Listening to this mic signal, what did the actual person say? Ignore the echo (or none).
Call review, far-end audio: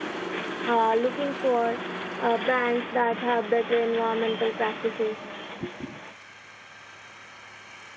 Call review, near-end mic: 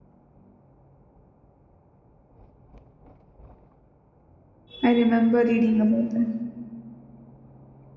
I remember reading about that.